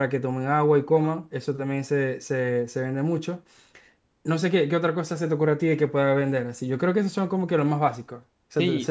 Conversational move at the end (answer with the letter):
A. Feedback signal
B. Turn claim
B